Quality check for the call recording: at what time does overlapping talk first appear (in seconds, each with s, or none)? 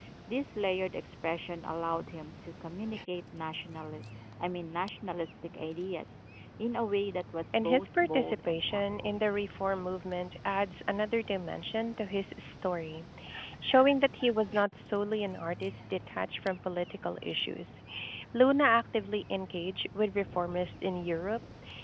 7.5 s